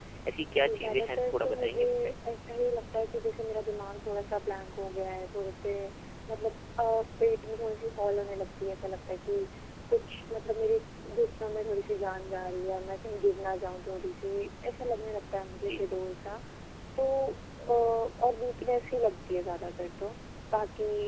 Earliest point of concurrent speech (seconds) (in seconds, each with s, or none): 0.5 s